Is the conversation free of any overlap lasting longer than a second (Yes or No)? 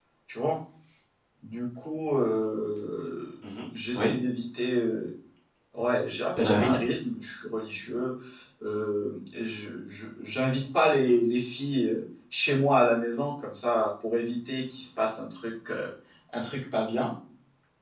Yes